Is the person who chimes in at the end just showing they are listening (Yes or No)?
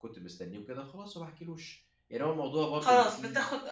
No